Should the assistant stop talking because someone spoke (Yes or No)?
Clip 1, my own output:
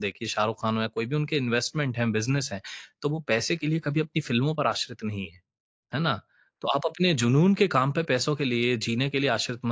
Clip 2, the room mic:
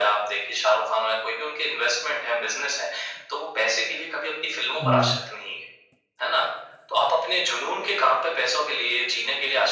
Yes